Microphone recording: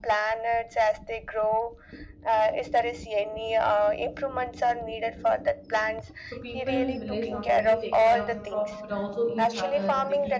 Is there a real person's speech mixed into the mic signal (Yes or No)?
Yes